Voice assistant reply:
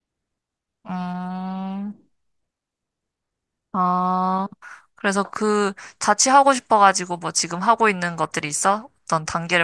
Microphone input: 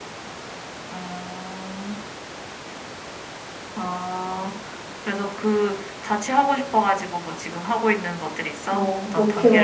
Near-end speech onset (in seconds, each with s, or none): 8.7 s